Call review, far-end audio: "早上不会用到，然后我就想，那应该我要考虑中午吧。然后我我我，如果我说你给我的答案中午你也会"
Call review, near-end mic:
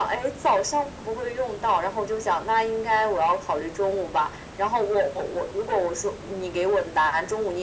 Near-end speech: none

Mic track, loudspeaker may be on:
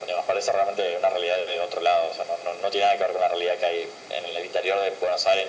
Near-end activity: none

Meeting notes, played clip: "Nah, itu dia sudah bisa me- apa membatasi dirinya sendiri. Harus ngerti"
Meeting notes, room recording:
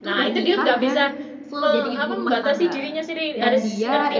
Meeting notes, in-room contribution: present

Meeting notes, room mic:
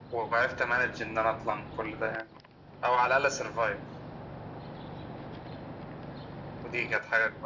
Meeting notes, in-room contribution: none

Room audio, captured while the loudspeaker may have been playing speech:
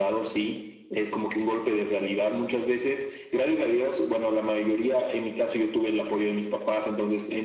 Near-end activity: none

